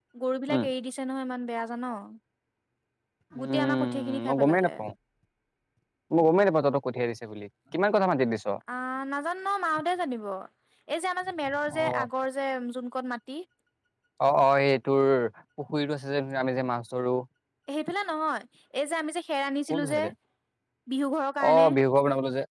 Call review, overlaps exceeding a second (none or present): present